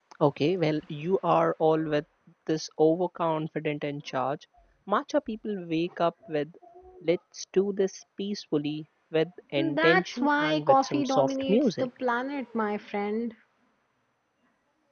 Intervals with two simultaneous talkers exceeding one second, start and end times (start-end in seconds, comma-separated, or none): 9.8-11.9